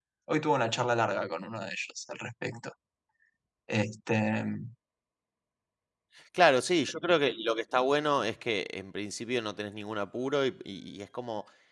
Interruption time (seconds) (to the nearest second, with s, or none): none